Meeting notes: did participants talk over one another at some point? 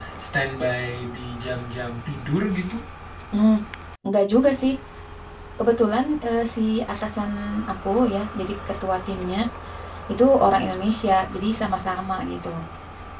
No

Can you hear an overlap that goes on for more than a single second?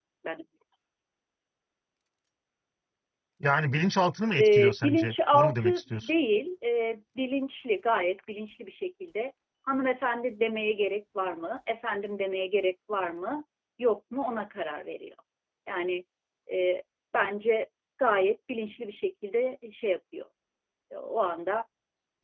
Yes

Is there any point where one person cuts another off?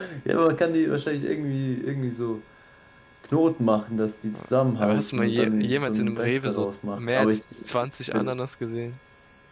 Yes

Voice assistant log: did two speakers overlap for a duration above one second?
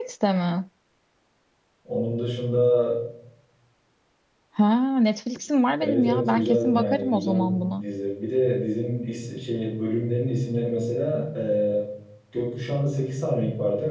Yes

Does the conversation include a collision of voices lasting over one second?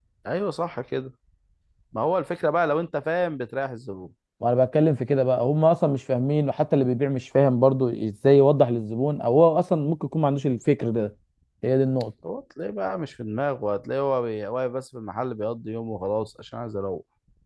No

